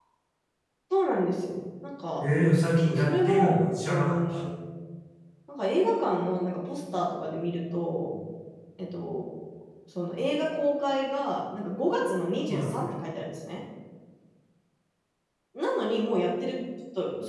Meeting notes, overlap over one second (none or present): present